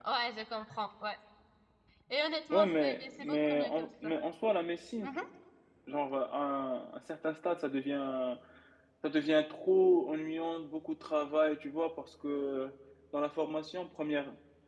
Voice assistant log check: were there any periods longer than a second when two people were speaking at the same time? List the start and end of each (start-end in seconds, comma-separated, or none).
2.5-4.1